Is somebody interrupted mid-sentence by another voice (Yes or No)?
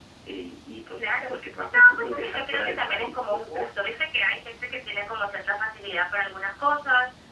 Yes